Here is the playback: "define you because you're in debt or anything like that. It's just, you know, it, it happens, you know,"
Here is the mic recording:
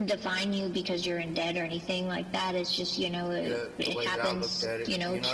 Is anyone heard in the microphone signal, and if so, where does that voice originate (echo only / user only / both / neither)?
both